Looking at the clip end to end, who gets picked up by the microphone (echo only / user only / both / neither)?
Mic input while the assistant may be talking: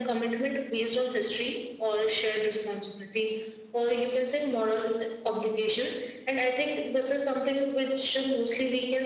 echo only